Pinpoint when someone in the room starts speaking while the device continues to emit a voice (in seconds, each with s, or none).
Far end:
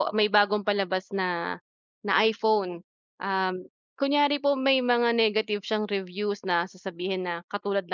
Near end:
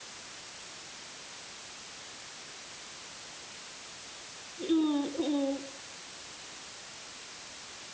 4.6 s